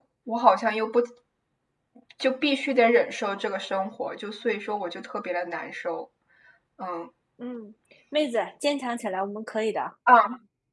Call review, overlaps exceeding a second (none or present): none